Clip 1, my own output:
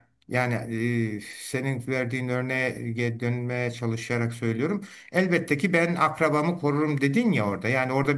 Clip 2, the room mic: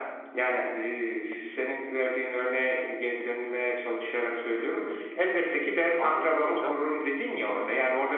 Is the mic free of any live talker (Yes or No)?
No